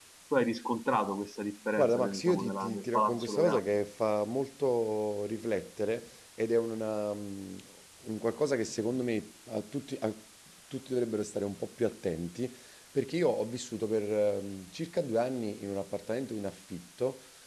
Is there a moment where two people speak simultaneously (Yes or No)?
Yes